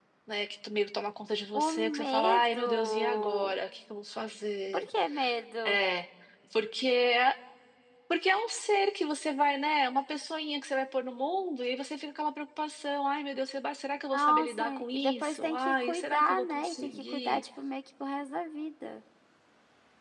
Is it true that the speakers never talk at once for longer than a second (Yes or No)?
No